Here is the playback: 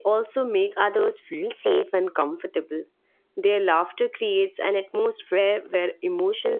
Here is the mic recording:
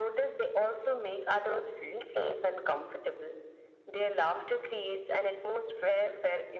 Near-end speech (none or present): none